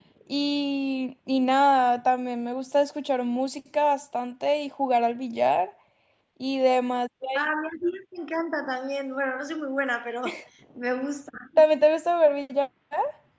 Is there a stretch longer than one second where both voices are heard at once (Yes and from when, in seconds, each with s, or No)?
No